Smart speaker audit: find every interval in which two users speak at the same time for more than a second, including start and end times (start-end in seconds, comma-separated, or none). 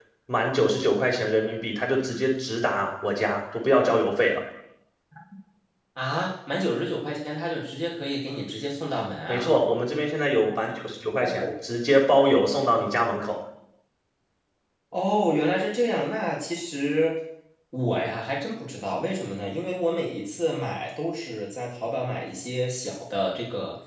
none